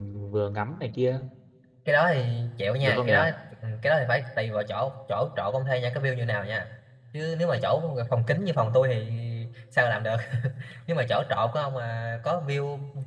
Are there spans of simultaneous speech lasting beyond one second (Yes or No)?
No